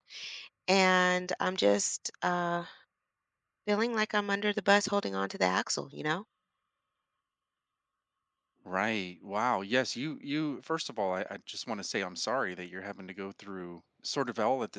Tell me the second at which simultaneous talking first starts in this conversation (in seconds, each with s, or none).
none